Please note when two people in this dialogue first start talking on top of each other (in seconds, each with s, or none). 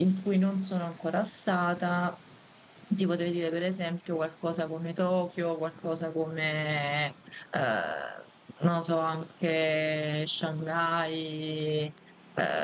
none